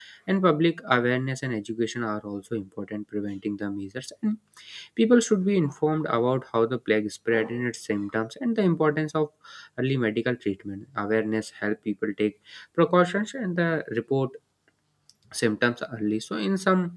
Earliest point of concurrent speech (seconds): none

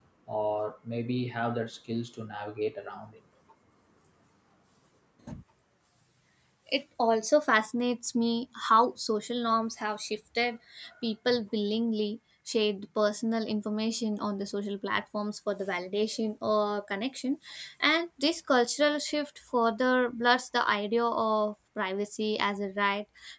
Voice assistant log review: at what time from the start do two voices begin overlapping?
none

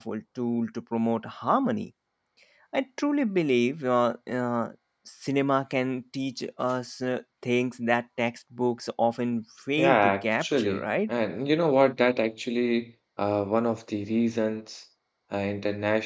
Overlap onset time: 10 s

